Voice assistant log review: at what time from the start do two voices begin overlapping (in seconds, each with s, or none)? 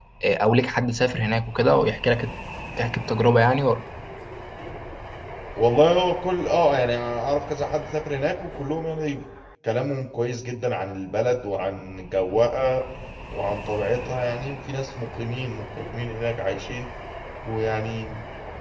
none